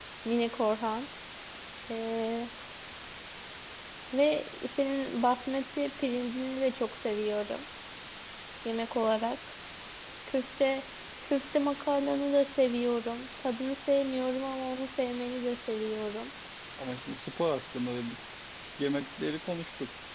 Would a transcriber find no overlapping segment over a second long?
Yes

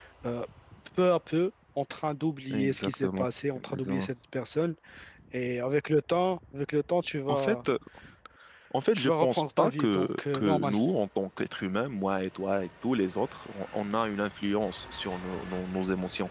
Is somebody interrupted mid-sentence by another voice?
Yes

